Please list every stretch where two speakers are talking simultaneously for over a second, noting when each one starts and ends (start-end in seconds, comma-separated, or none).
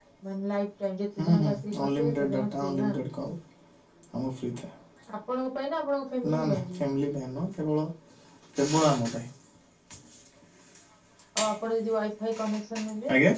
1.2-2.9